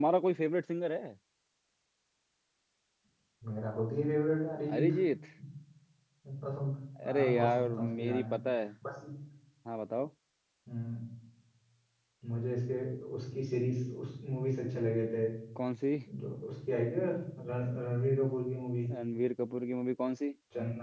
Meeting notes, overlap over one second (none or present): present